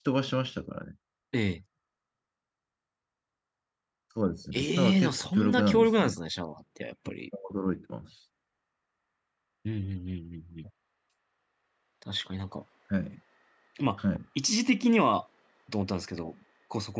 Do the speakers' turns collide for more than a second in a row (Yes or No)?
Yes